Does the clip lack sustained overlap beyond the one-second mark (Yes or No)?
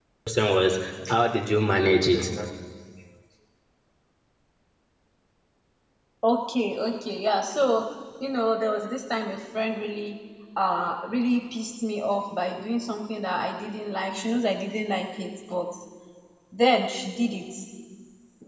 Yes